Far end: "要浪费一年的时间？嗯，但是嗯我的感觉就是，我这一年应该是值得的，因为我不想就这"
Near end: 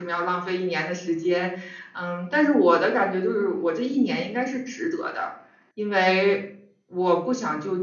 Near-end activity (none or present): none